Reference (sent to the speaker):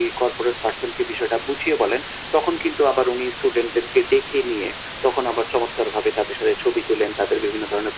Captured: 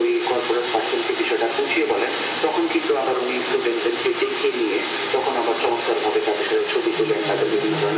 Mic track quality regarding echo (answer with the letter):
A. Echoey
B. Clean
A